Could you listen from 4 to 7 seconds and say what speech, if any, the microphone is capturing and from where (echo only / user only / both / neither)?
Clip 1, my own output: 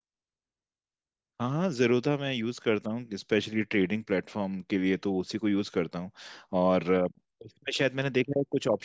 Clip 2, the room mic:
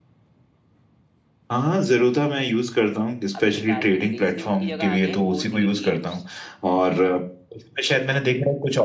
both